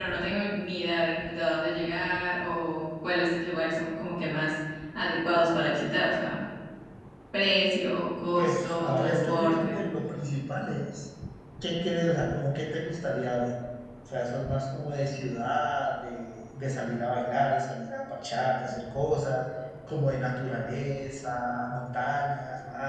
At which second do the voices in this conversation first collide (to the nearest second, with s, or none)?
8 s